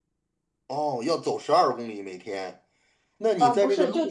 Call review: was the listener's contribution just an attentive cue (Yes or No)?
No